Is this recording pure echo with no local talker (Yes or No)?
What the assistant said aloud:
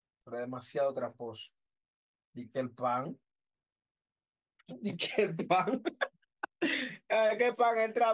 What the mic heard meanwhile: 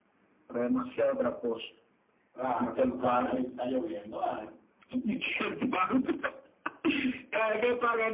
No